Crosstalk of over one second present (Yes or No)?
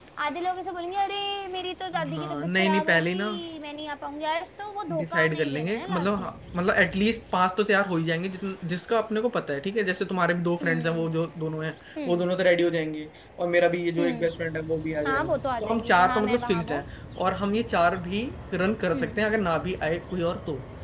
Yes